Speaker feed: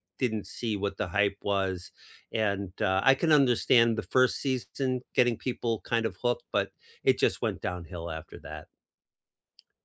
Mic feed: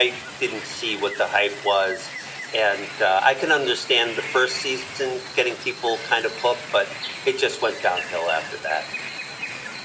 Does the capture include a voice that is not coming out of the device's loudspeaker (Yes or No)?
No